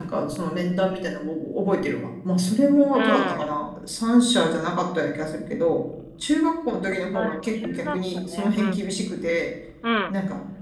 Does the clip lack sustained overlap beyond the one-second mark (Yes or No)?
No